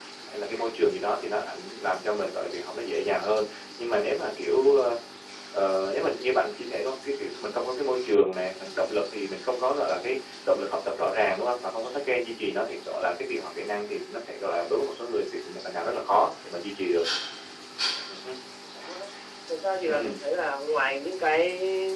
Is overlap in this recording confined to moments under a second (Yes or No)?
Yes